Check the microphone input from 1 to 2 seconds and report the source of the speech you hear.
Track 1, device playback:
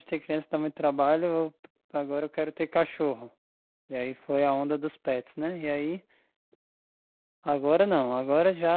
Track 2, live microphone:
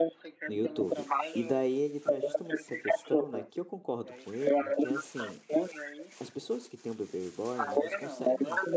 both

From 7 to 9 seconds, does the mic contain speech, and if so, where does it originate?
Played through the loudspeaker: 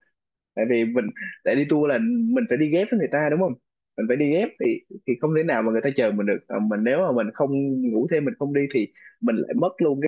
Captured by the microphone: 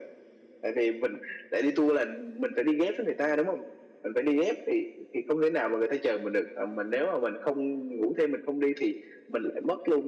echo only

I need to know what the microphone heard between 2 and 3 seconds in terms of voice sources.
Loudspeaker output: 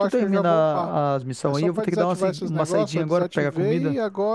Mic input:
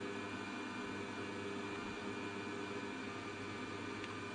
neither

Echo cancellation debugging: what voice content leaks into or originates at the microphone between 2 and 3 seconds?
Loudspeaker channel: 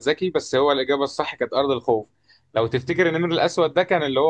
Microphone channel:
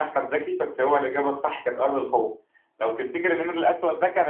echo only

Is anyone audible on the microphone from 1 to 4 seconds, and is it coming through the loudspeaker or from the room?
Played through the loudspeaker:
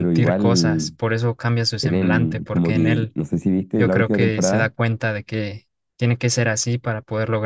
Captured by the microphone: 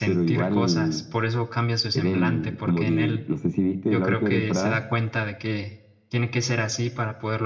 echo only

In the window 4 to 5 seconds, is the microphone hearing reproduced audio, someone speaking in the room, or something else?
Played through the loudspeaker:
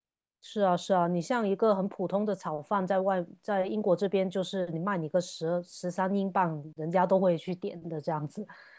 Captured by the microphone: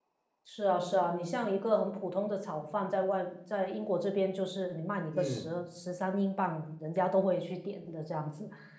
echo only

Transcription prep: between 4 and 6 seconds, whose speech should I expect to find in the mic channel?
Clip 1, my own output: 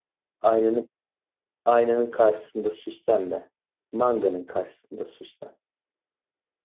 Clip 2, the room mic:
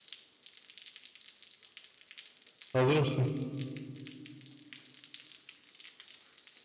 neither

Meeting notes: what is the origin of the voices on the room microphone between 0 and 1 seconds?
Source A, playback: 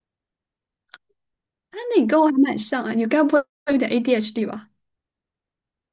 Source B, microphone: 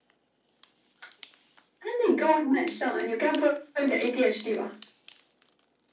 neither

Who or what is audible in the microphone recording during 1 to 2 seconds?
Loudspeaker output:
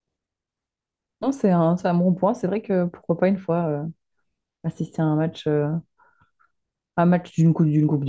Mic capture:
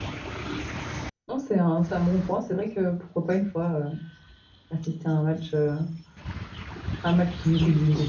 echo only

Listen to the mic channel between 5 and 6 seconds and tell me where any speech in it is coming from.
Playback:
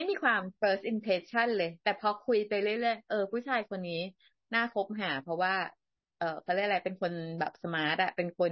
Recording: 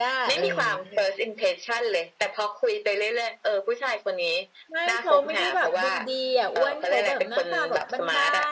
both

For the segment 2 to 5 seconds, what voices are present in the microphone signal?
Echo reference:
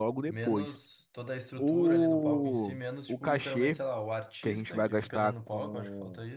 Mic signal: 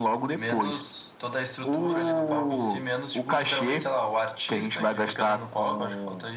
echo only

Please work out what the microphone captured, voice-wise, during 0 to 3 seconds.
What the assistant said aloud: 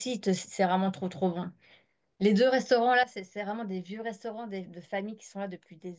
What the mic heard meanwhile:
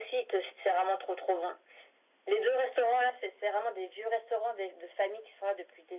echo only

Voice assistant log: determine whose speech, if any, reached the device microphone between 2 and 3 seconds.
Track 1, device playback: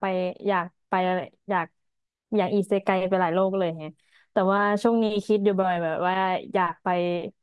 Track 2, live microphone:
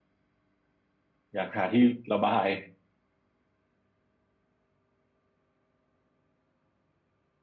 user only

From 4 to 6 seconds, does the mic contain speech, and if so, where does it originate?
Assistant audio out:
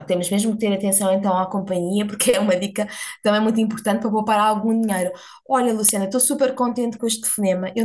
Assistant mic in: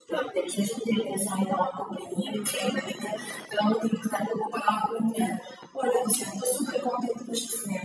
echo only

